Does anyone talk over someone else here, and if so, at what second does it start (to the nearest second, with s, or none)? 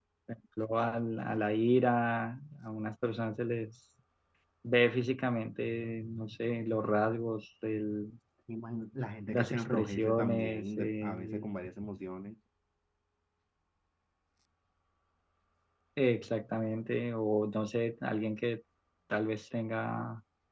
9 s